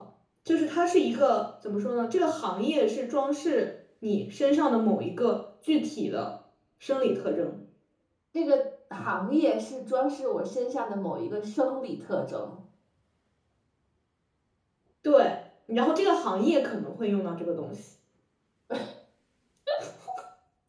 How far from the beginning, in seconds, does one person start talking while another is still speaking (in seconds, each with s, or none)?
none